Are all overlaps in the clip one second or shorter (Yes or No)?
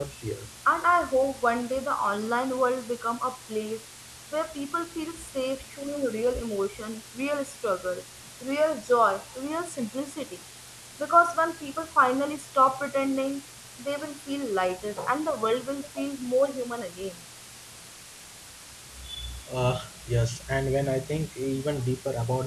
Yes